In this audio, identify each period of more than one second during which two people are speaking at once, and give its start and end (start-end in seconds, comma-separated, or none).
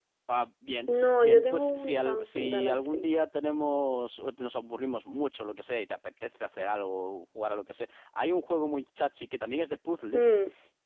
1.0-3.0